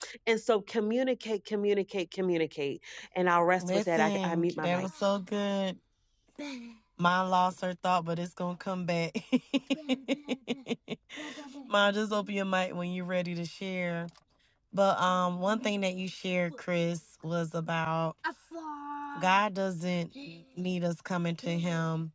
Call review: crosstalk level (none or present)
present